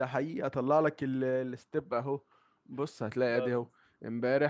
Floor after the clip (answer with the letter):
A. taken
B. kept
B